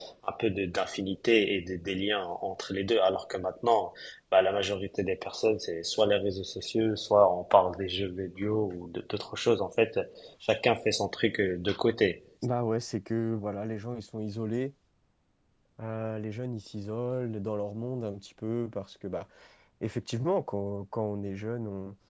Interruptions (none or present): none